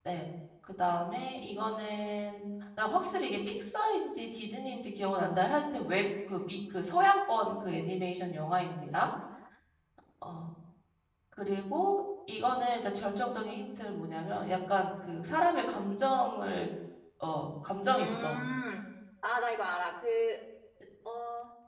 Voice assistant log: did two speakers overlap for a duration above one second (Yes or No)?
No